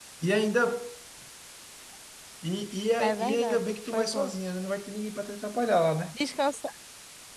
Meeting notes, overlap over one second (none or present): present